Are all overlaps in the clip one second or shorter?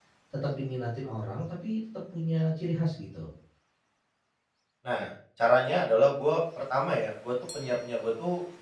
Yes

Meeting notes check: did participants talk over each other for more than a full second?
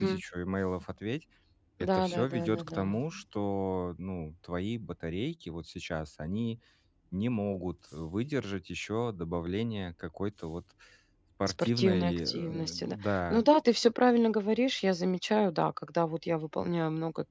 Yes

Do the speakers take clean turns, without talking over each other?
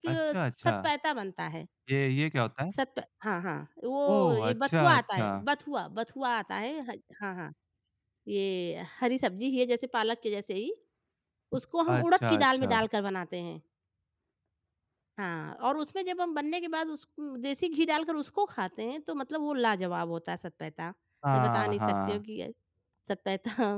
No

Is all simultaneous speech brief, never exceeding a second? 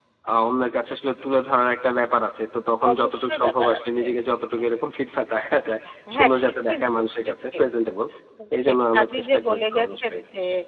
No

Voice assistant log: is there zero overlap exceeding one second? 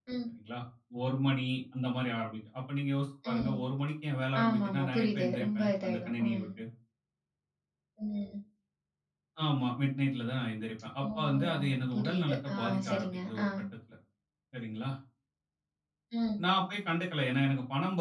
No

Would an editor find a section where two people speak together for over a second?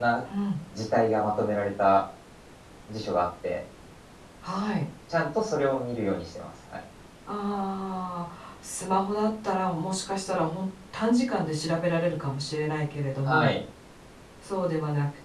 No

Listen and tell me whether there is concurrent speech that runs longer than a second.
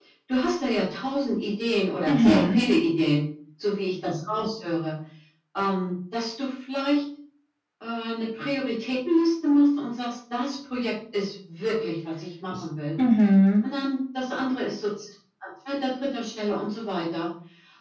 No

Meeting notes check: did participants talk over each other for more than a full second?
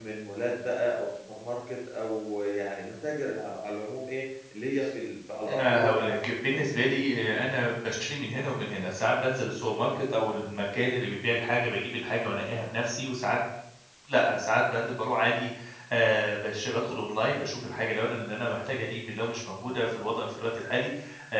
Yes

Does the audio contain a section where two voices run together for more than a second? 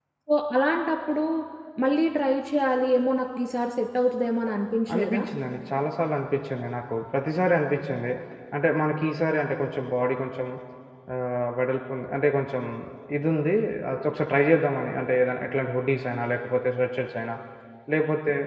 No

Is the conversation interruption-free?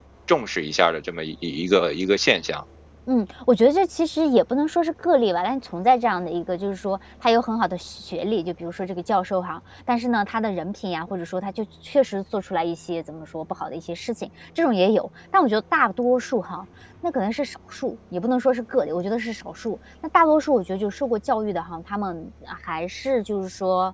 Yes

